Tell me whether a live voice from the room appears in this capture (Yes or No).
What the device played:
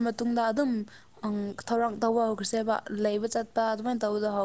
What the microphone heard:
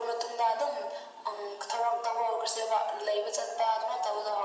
No